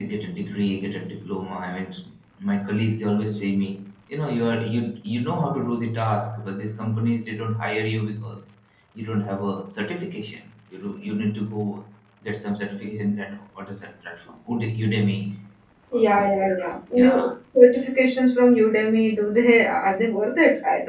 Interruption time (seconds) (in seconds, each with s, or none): 15.9 s